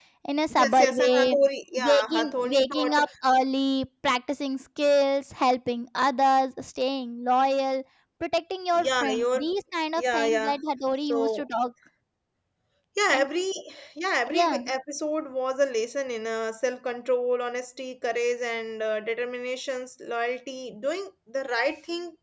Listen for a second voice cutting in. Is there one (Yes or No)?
Yes